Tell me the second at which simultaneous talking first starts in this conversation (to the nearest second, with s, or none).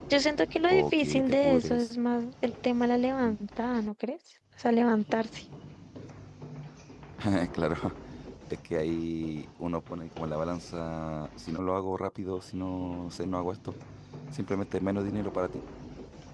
1 s